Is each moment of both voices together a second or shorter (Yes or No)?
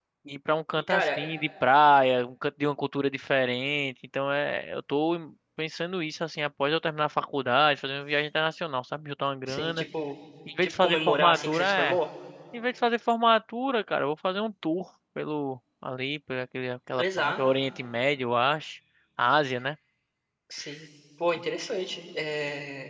No